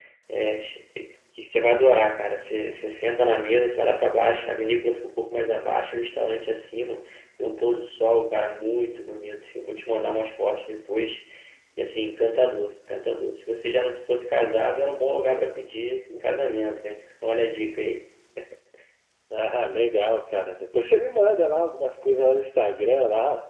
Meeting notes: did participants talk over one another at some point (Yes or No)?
No